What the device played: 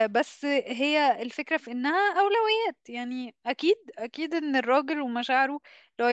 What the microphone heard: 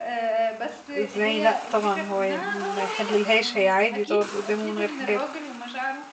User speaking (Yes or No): Yes